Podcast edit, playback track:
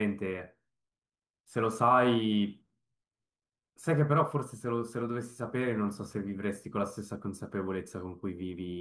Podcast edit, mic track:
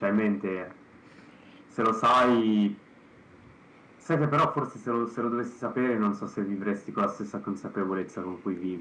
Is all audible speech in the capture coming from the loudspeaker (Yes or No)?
Yes